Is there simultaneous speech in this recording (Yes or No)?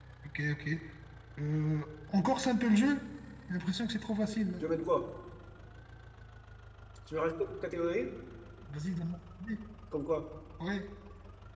No